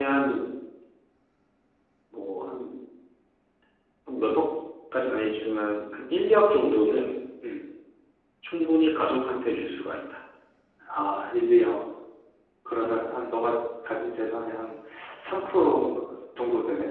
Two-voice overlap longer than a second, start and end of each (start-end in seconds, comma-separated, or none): none